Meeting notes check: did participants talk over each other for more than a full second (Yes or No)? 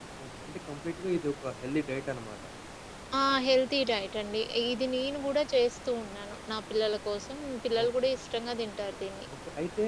No